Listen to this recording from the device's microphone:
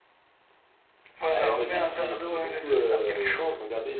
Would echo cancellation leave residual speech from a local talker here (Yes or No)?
Yes